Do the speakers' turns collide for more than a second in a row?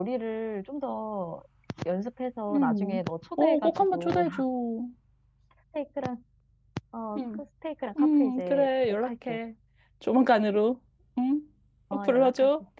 Yes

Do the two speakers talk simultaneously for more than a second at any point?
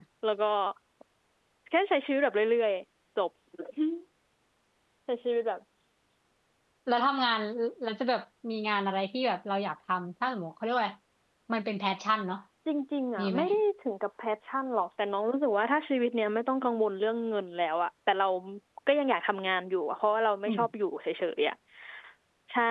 No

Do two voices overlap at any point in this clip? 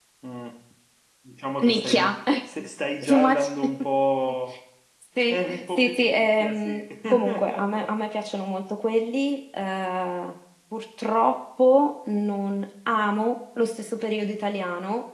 Yes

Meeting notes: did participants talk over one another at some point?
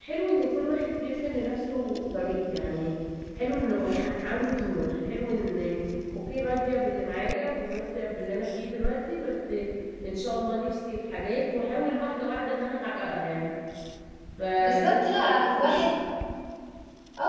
Yes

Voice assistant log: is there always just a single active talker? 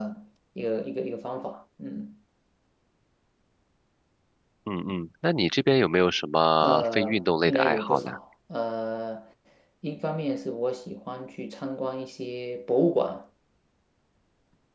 No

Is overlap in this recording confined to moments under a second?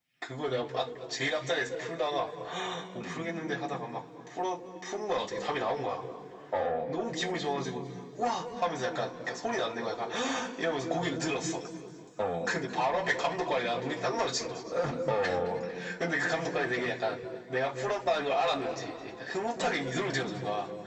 Yes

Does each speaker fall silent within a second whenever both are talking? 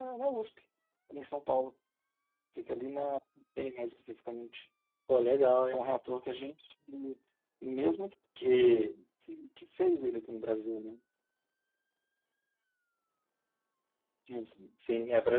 Yes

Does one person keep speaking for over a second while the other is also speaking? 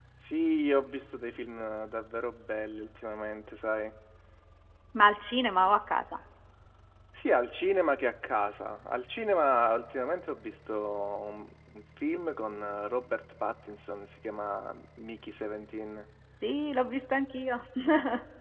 No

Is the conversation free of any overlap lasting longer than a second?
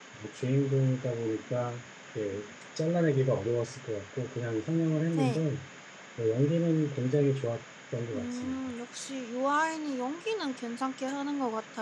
Yes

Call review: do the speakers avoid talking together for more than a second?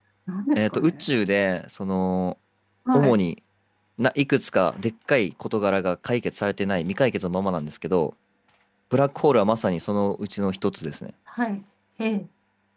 Yes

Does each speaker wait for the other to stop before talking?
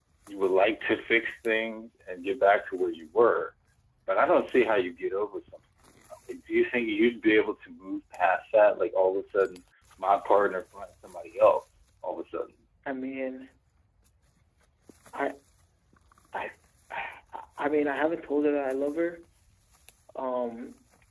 Yes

